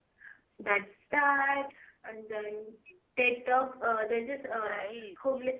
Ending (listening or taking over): listening